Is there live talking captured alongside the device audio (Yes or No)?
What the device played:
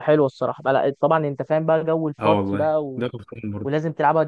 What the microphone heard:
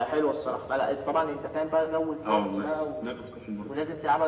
No